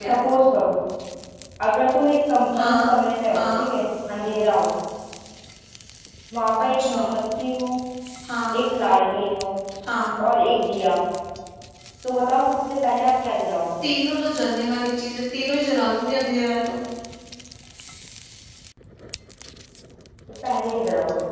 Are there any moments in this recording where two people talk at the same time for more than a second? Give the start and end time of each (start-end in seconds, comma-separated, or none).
none